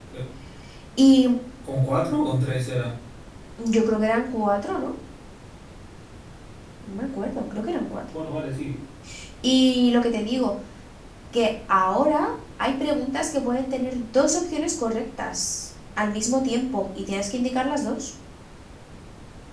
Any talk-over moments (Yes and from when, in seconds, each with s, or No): No